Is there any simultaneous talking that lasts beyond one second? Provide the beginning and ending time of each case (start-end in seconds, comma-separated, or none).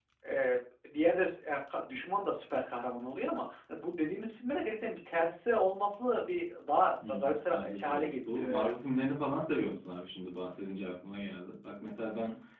7.5-8.7